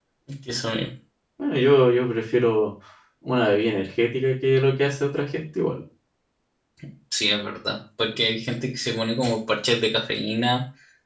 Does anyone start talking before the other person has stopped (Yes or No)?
No